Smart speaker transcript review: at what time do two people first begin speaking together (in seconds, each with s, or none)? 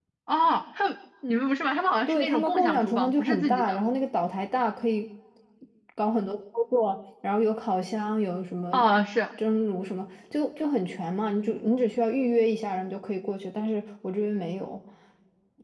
2.1 s